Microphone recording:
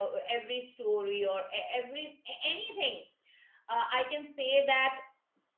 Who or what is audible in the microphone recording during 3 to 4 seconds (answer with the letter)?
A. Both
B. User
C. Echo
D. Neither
B